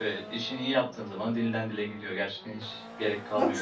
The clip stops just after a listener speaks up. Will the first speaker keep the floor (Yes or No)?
No